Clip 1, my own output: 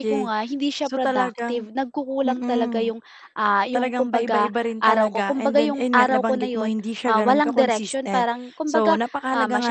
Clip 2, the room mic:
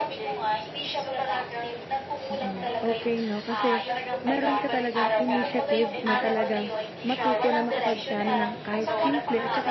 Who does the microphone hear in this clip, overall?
both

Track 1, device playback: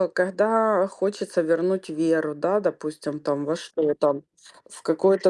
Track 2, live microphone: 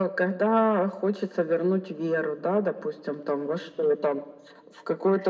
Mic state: echo only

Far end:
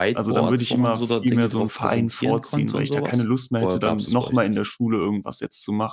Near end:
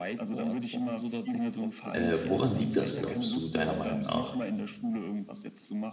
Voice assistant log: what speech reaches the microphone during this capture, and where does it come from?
both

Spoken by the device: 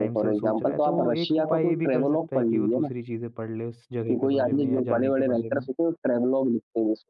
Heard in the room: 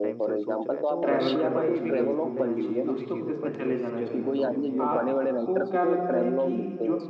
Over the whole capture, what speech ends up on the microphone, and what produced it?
both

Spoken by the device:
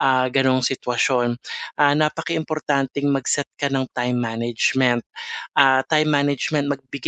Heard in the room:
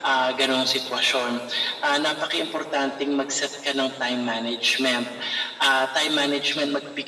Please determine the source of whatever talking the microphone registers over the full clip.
echo only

